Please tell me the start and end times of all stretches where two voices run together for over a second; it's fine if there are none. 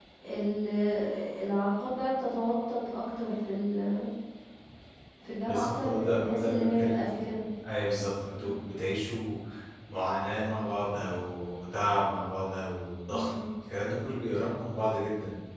5.5-7.3

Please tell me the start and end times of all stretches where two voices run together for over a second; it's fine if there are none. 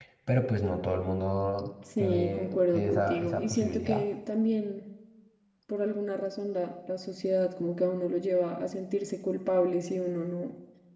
2.0-4.0

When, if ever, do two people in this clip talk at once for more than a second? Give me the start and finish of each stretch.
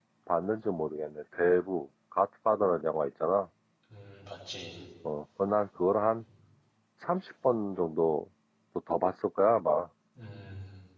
none

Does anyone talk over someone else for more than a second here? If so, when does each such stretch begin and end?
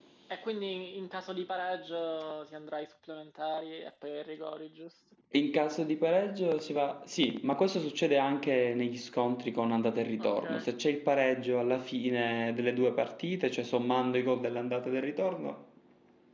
none

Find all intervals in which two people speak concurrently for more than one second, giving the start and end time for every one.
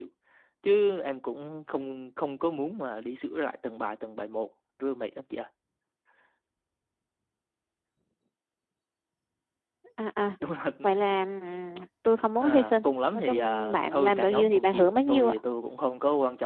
12.4-15.4

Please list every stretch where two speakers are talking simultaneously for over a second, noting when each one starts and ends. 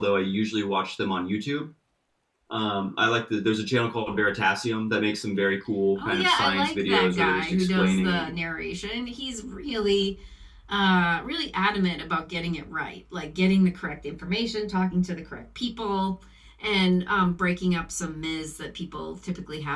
6.0-8.3

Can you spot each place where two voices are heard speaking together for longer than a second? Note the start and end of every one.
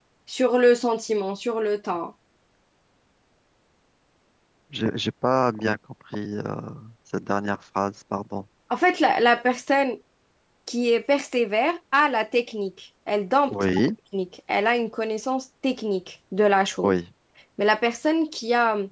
none

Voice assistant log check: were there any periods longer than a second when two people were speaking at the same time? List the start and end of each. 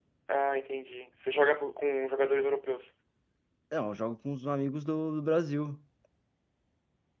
none

